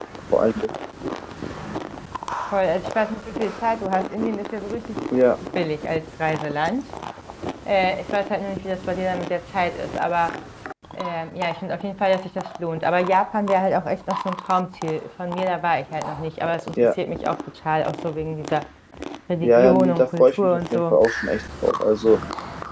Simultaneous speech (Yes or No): Yes